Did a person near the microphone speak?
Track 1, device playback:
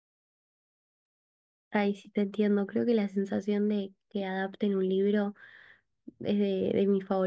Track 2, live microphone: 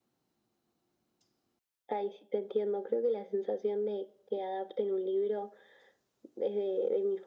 No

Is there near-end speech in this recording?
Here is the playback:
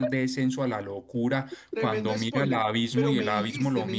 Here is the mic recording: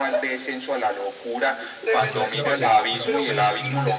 Yes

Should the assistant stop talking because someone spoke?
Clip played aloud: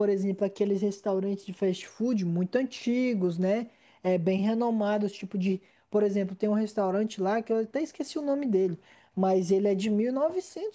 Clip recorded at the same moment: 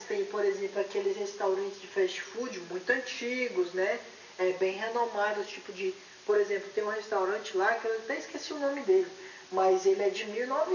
No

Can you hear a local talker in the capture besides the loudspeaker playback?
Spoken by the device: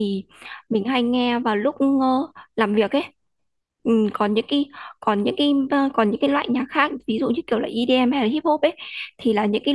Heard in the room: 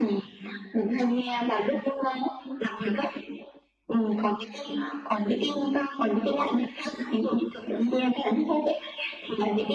No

